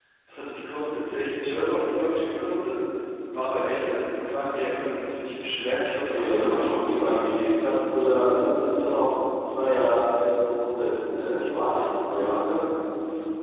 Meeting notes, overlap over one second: present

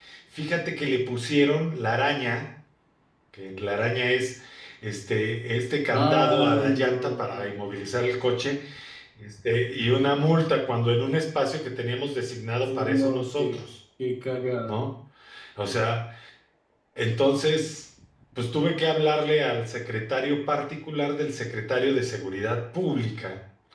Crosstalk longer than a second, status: present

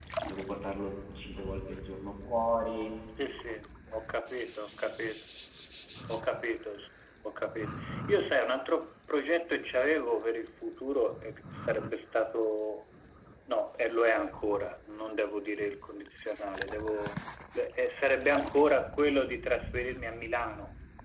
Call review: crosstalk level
none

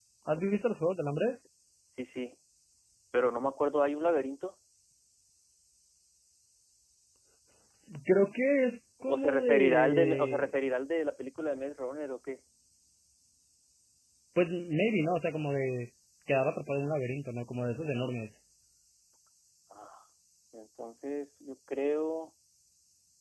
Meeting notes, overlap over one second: present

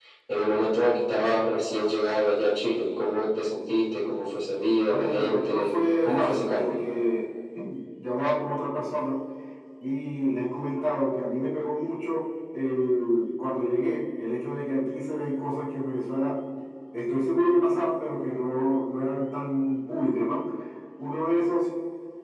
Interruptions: present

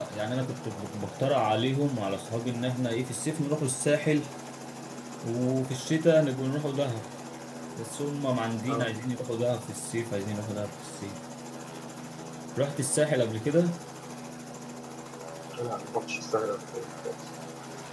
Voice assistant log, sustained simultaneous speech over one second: none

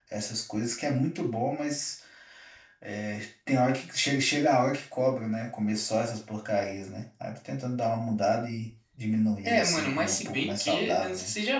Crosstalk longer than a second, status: present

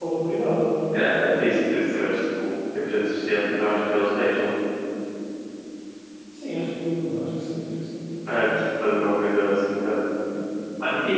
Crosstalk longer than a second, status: none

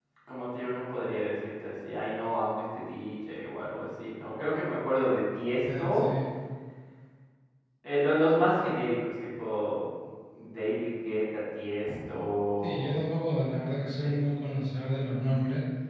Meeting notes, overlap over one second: none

